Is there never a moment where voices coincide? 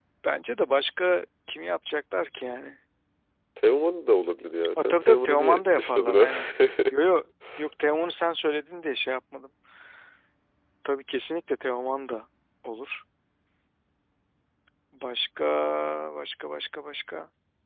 No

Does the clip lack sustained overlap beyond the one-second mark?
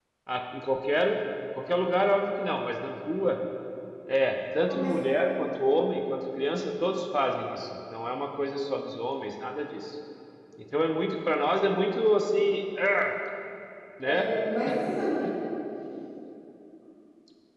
Yes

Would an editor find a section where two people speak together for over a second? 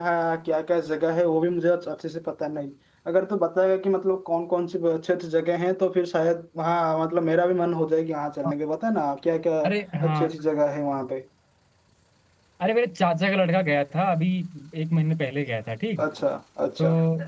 No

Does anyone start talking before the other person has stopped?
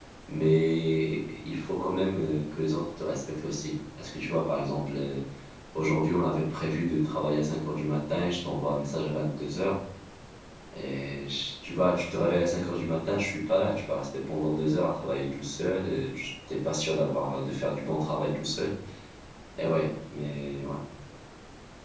No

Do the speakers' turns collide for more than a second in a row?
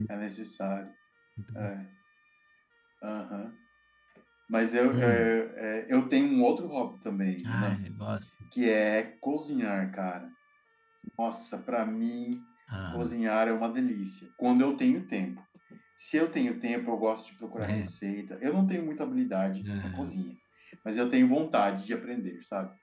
No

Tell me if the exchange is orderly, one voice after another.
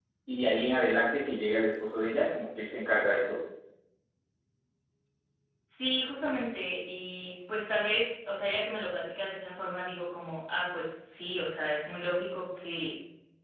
Yes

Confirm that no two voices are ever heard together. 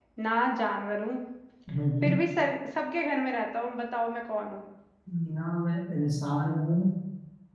Yes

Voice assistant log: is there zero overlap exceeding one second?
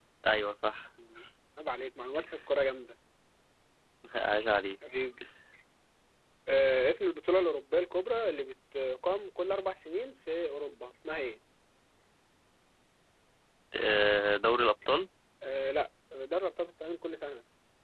Yes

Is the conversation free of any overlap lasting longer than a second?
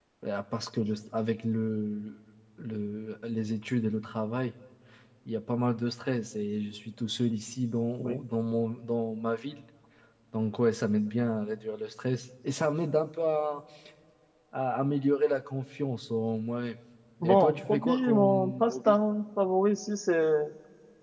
No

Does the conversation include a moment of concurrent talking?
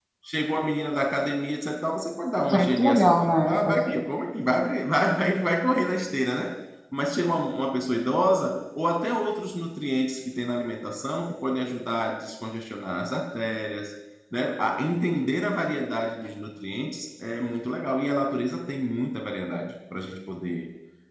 Yes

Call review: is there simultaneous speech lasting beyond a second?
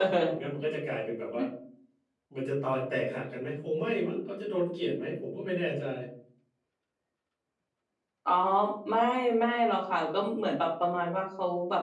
No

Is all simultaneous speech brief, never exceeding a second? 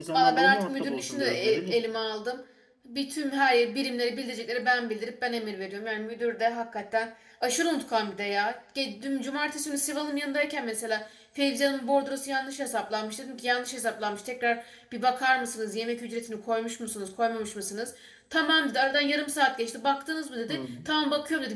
No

